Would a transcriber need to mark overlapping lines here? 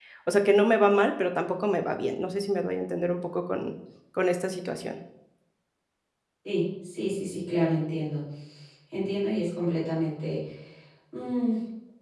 No

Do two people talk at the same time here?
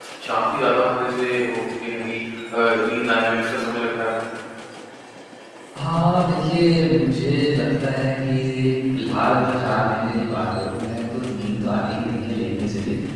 No

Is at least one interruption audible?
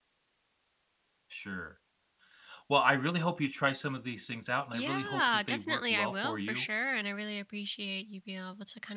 Yes, from 4.7 s

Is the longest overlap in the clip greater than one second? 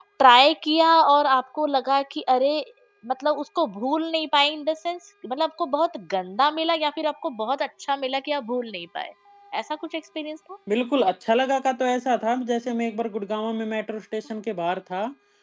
No

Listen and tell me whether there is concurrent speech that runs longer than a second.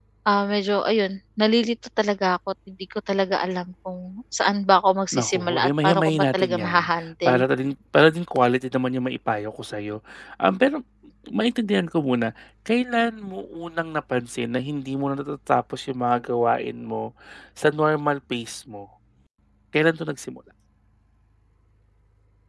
Yes, from 5.1 s

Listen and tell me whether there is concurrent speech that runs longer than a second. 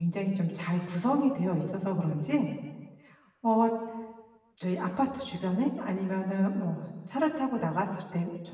No

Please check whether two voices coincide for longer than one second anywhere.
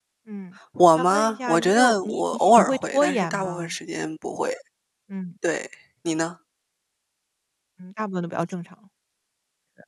Yes, from 1.0 s

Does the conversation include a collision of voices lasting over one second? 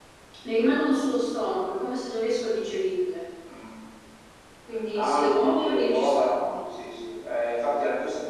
Yes, from 4.9 s

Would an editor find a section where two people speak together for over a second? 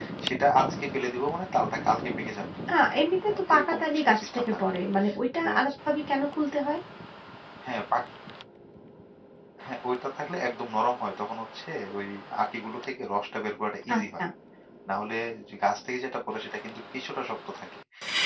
Yes, from 3.3 s

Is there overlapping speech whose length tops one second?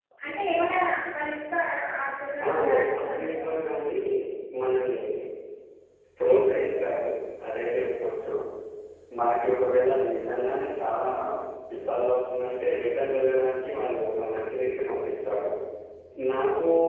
Yes, from 2.5 s

